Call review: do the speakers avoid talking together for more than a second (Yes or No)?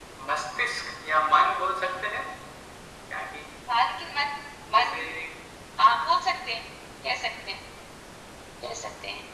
Yes